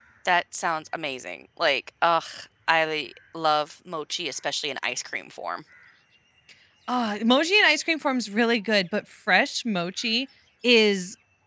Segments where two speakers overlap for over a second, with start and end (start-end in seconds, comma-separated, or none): none